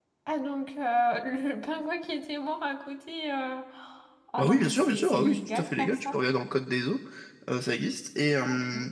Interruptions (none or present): present